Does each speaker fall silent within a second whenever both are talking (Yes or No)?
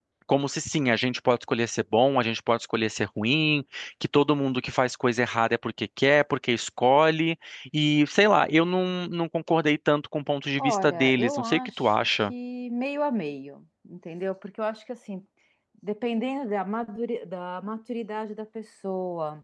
No